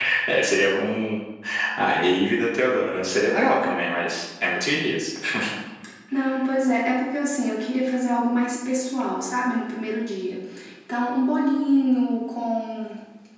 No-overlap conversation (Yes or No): Yes